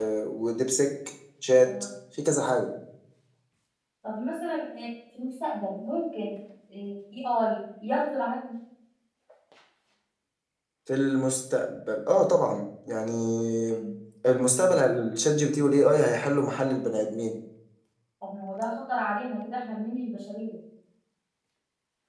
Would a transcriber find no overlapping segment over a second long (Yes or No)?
Yes